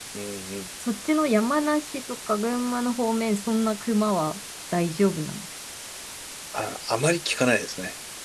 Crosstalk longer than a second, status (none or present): none